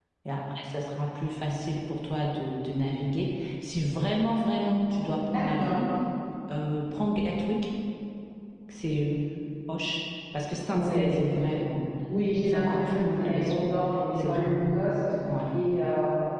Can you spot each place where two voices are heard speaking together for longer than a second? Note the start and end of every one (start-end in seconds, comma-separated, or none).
12.4-13.8